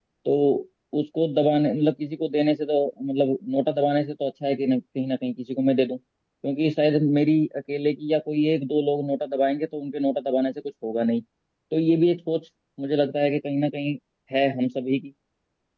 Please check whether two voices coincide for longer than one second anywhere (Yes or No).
No